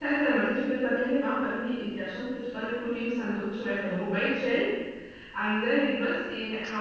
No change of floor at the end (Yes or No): Yes